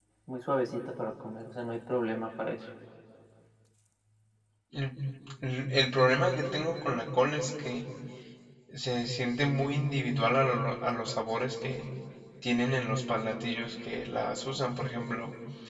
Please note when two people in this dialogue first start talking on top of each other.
none

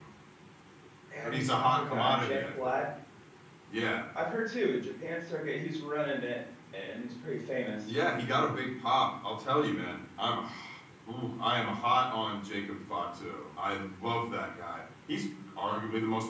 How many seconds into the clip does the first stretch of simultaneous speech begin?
1 s

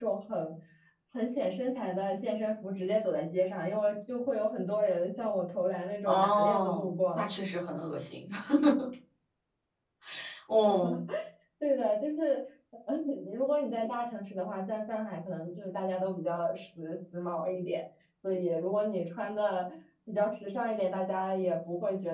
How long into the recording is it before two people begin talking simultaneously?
6 s

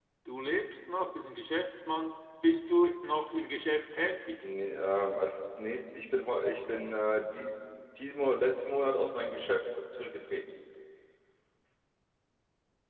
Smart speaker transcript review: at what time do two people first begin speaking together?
none

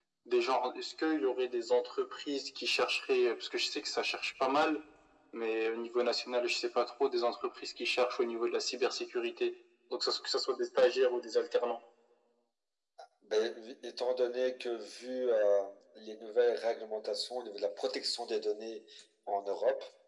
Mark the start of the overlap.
none

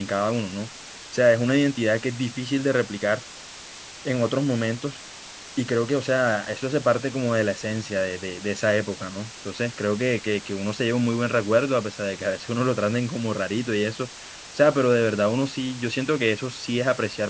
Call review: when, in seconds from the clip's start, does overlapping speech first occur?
none

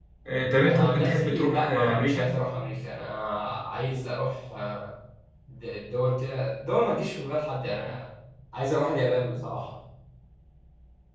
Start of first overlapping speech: 1 s

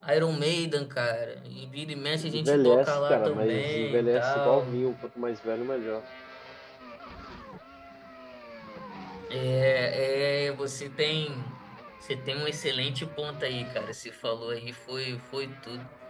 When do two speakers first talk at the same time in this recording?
2 s

